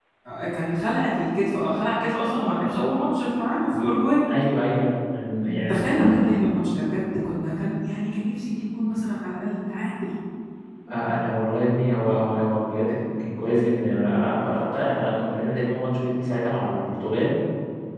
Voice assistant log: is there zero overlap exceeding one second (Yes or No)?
Yes